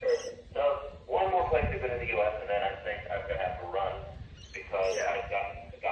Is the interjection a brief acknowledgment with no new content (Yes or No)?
Yes